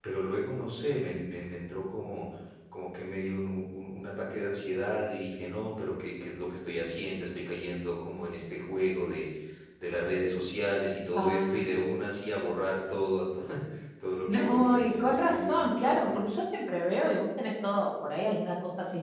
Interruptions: present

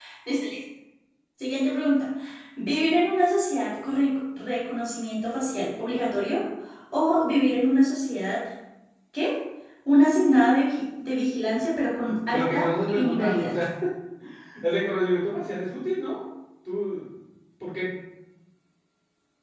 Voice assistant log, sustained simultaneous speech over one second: present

